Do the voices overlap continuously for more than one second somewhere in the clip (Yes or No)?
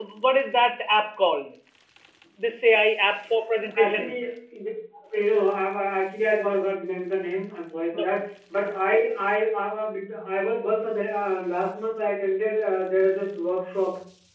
No